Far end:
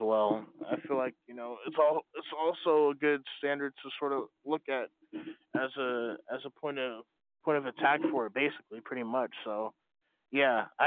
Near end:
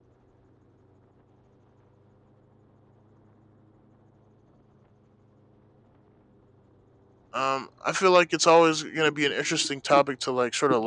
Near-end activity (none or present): present